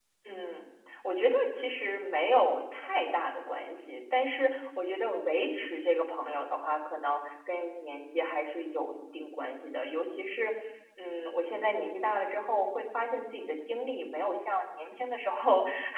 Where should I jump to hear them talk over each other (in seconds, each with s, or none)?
none